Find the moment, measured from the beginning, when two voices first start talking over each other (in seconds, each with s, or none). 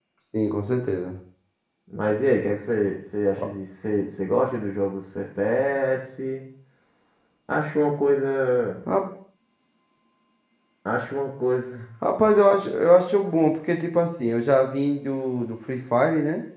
none